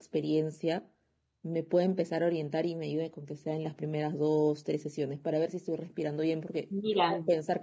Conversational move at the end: listening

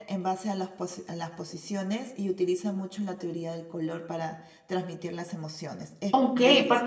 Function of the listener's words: taking over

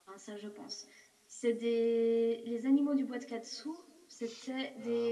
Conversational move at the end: taking over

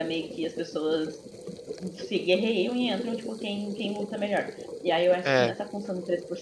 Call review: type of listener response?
listening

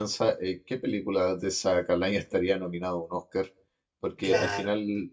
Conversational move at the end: listening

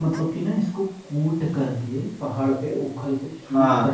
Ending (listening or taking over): listening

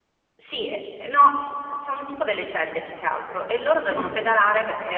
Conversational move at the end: listening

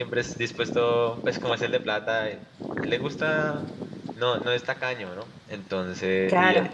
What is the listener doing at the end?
listening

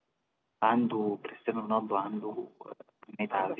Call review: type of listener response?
taking over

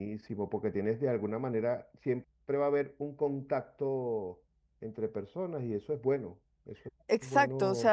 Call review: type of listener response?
taking over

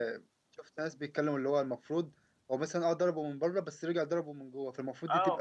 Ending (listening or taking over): taking over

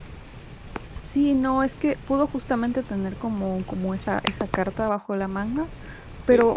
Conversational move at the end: listening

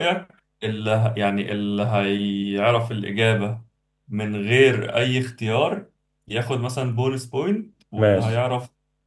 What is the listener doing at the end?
listening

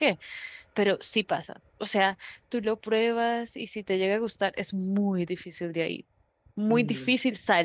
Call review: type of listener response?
listening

